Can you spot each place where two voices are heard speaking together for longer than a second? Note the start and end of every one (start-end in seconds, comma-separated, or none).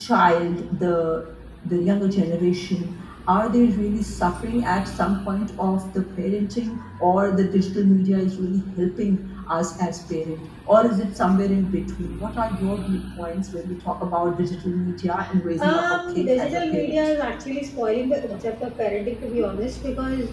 15.6-17.0